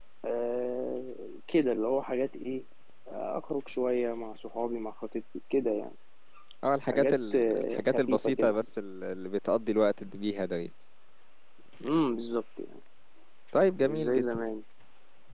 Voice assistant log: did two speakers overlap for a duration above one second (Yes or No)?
Yes